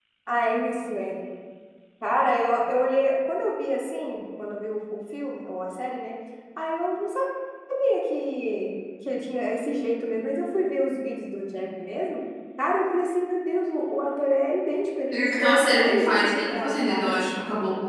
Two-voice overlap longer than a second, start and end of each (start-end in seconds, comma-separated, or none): 15.4-17.2